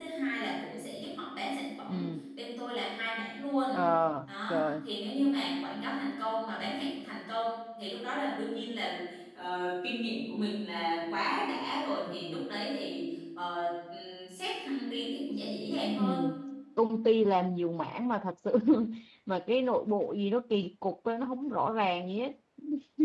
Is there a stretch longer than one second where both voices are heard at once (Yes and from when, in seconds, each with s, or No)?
No